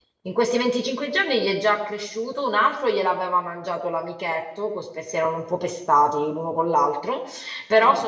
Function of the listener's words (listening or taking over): listening